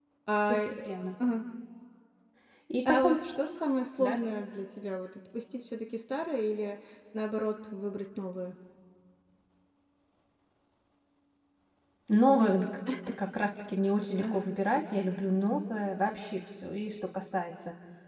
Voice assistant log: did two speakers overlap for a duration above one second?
No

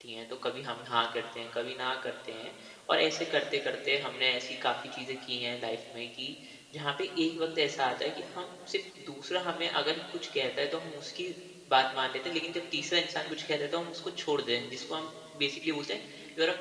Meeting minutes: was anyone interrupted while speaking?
No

